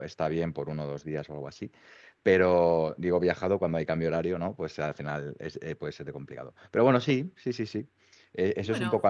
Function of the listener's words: listening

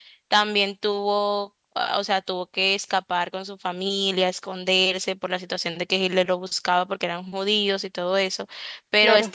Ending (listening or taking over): listening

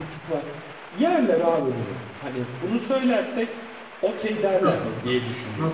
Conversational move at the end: taking over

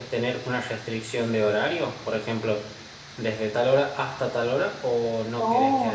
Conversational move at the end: taking over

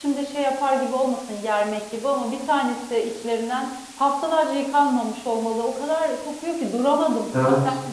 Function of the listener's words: listening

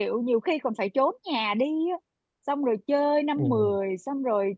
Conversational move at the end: listening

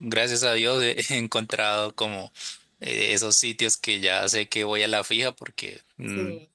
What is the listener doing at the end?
listening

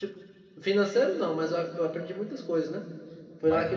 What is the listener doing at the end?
listening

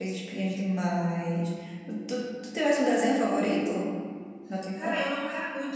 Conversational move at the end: taking over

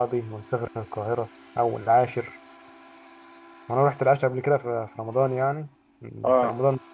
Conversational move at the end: listening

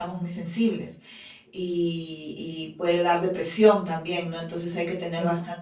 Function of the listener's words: listening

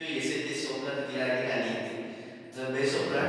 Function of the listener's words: listening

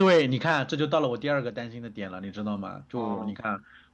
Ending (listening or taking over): listening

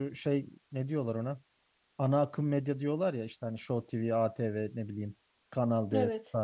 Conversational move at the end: listening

